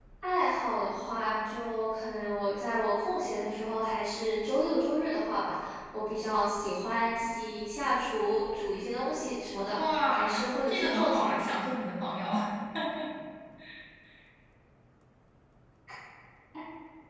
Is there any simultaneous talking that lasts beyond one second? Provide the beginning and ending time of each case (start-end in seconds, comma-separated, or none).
9.8-11.6